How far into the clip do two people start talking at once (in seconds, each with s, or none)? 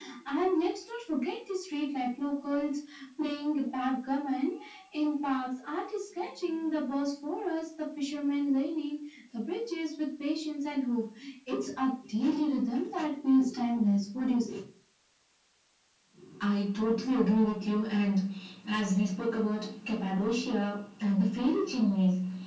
none